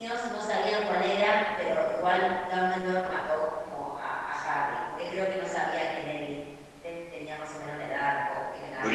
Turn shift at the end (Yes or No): Yes